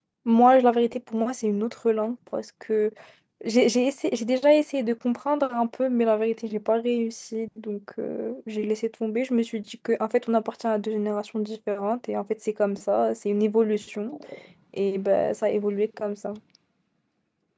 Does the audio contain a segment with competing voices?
No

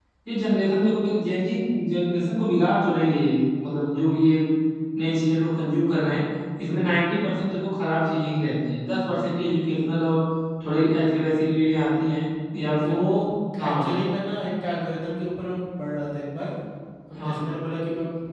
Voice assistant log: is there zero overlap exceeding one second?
Yes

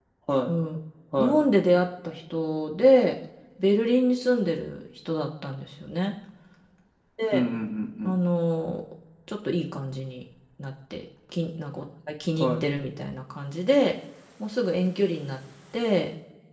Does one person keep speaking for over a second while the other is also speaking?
No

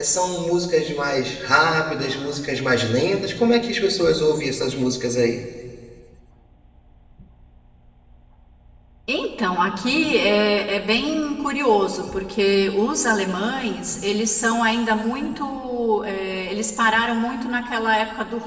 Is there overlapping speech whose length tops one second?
No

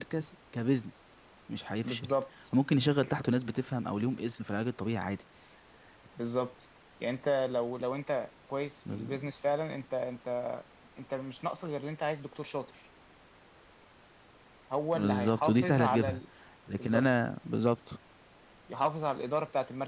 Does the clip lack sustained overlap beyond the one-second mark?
No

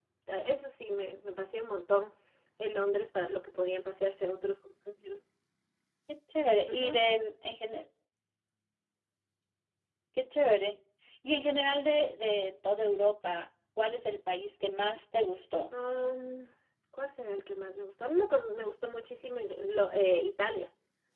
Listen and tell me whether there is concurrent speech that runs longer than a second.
No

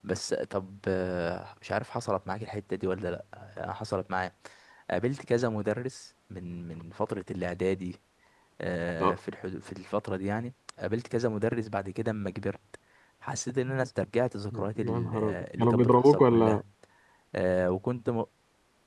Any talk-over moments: Yes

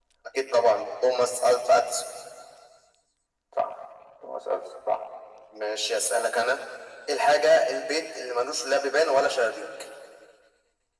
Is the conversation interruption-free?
Yes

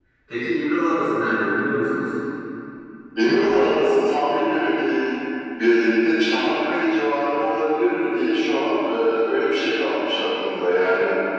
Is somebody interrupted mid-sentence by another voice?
No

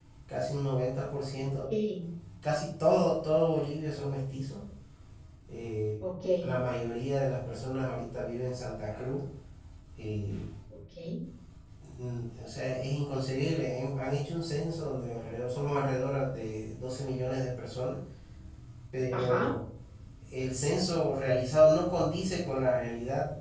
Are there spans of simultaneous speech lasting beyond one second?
No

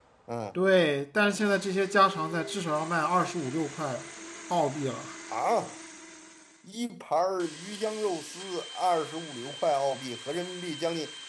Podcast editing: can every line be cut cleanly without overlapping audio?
Yes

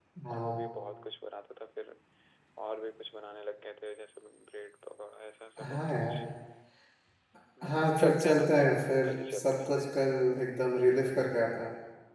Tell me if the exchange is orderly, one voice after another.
No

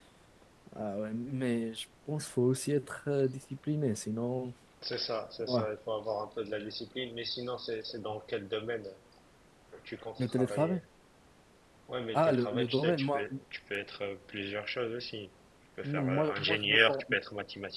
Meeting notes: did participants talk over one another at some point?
Yes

